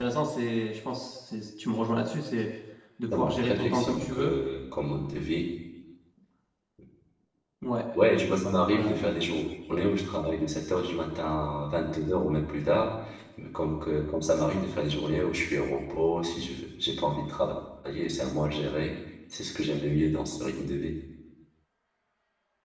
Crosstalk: present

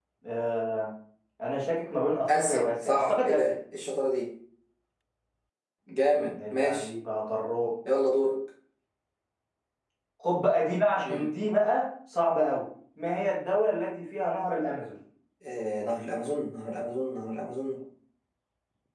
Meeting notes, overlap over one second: present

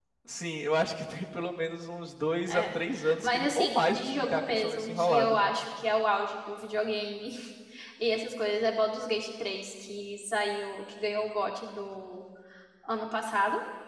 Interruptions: present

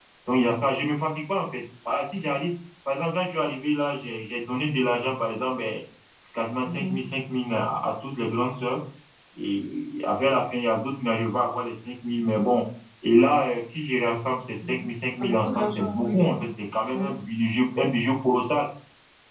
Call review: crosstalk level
present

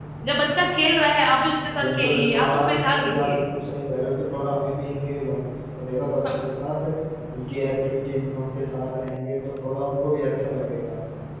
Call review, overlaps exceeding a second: present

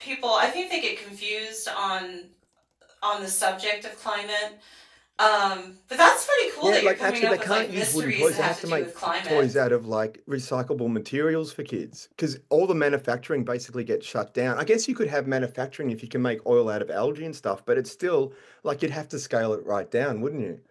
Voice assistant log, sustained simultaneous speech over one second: present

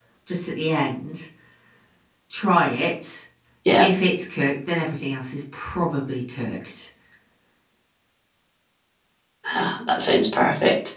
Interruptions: none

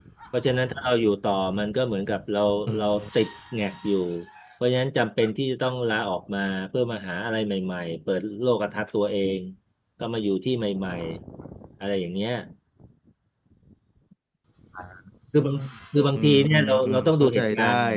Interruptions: present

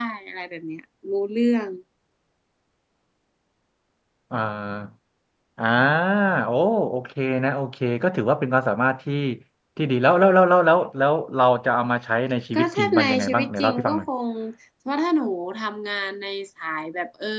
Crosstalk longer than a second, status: present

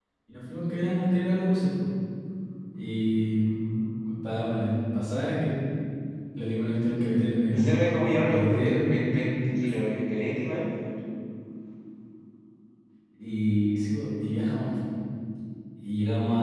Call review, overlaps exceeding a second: present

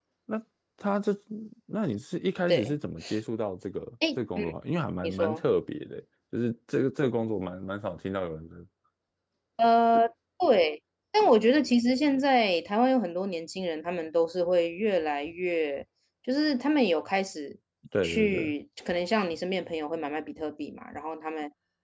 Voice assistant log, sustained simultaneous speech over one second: none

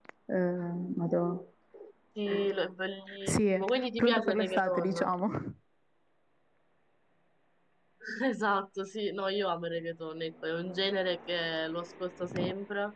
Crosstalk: present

